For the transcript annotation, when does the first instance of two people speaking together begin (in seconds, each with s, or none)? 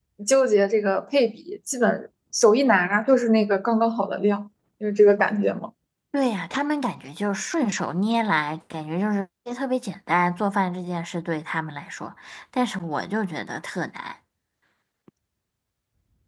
none